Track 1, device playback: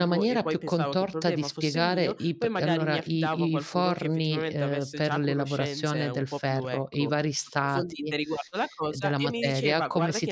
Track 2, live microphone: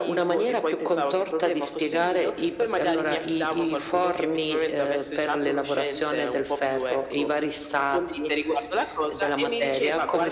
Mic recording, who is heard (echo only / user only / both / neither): echo only